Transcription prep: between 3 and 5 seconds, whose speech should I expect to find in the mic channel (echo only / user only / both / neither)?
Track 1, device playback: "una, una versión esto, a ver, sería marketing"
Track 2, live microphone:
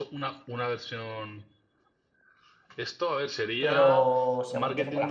both